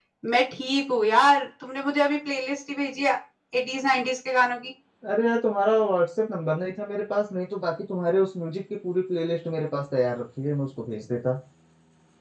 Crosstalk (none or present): none